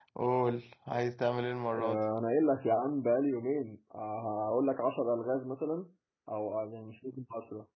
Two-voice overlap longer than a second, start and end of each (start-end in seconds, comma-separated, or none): none